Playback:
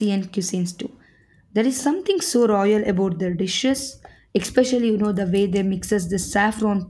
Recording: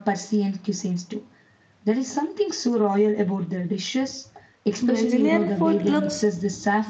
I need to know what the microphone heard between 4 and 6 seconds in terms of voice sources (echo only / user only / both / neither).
both